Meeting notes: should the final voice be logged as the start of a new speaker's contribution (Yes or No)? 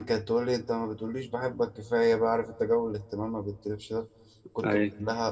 No